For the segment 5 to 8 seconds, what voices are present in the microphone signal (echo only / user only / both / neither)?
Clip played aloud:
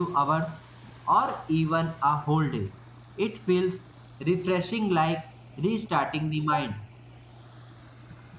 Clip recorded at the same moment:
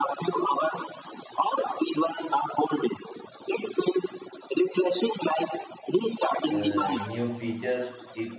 both